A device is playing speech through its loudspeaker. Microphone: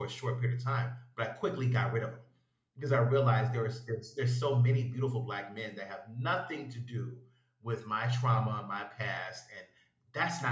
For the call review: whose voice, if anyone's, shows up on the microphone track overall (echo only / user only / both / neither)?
user only